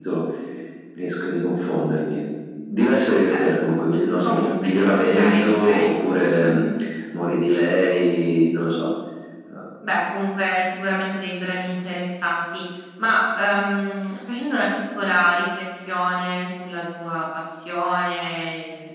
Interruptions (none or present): present